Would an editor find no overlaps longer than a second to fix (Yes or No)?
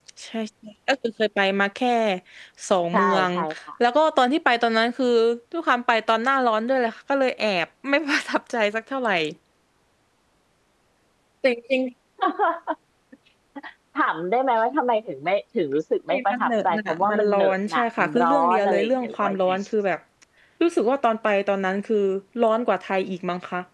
No